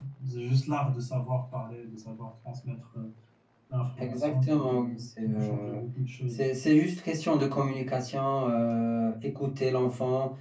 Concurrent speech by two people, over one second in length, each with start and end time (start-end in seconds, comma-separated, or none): 4.0-5.8